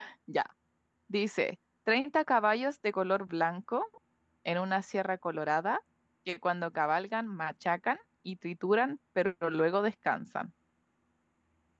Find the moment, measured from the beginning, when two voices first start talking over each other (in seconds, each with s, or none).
none